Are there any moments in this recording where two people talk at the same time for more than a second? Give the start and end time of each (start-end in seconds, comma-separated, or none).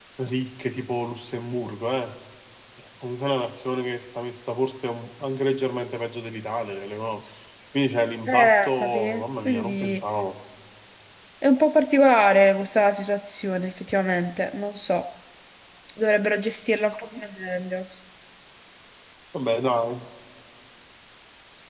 8.3-10.0